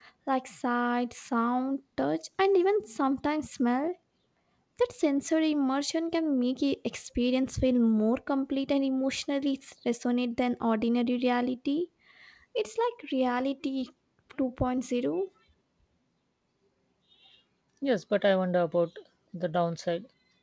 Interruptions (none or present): none